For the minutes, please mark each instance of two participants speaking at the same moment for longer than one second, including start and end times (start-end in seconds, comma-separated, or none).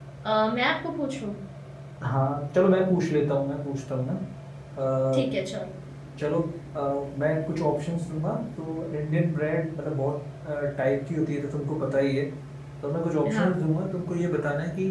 none